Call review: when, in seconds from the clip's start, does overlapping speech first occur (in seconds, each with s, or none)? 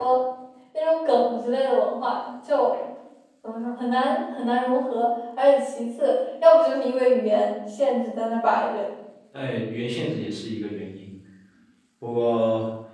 none